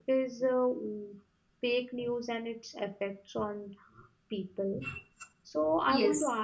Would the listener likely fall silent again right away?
Yes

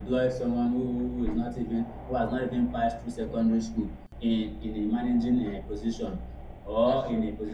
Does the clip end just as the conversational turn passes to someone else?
No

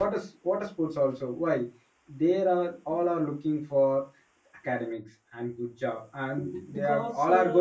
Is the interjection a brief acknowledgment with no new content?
Yes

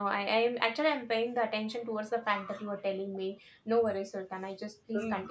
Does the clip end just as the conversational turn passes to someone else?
Yes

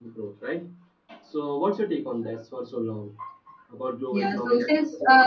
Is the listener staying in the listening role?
No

